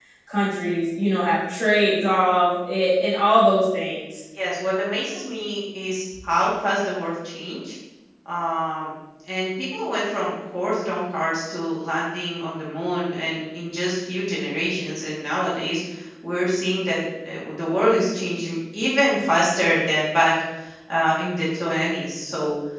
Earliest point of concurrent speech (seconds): none

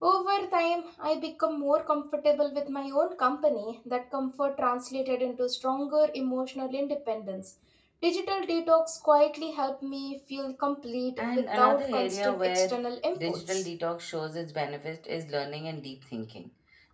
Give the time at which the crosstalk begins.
11.2 s

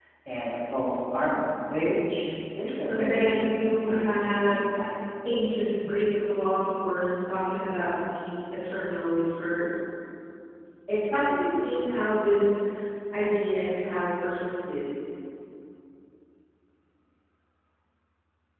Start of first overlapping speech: 2.9 s

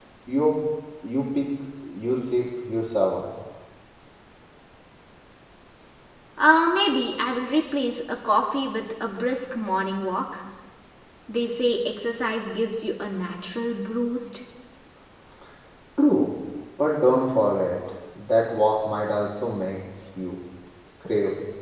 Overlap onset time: none

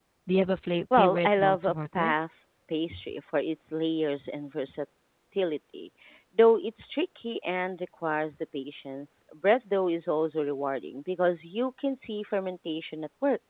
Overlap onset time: 0.9 s

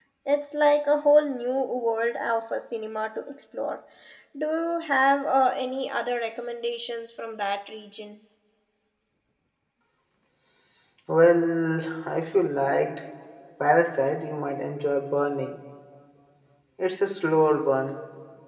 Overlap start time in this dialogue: none

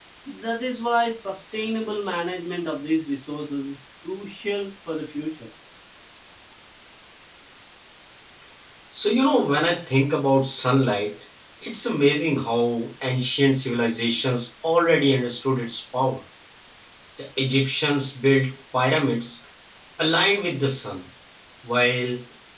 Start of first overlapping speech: none

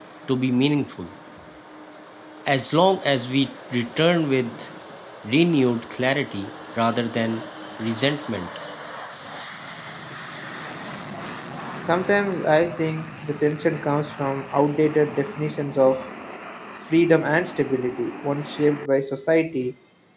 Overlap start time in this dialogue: none

